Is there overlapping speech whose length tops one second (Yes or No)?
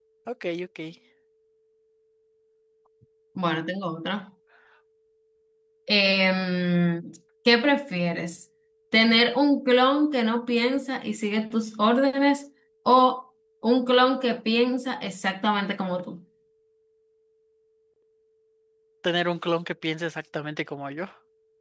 No